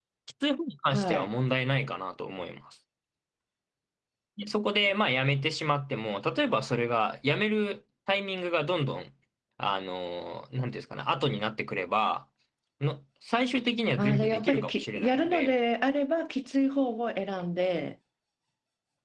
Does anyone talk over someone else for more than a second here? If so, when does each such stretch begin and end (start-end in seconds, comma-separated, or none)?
14.0-15.5